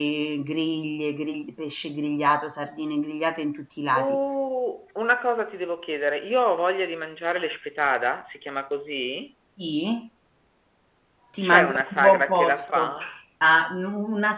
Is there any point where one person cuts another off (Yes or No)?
Yes